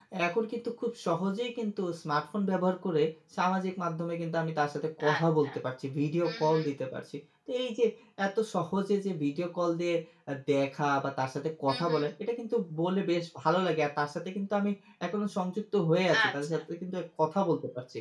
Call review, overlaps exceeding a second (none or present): none